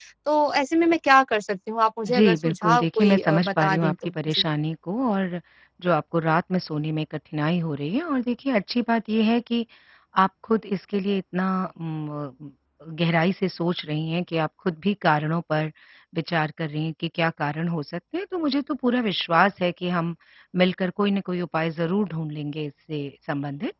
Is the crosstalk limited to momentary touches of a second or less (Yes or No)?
No